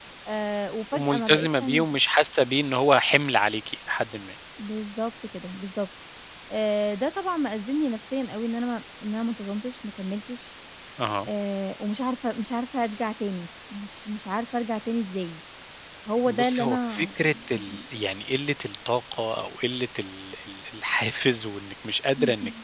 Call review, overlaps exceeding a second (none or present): present